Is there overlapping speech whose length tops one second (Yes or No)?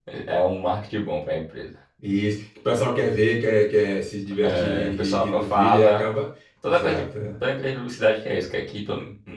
Yes